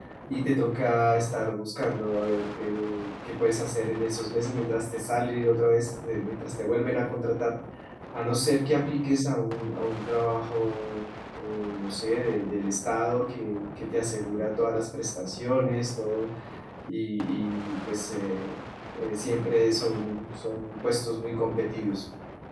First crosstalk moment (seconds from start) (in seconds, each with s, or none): none